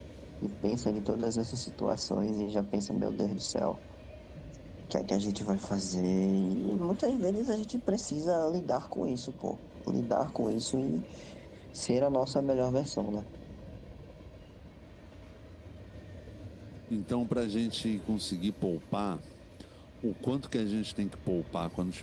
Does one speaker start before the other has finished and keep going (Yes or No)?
No